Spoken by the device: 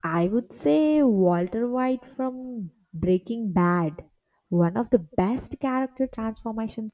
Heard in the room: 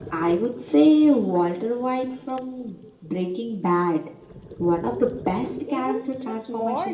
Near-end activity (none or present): present